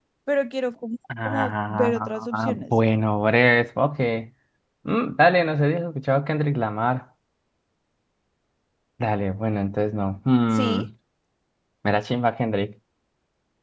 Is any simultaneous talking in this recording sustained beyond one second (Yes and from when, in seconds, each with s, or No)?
Yes, from 1.2 s